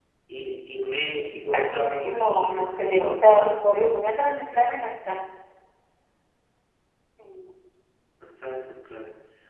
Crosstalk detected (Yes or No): Yes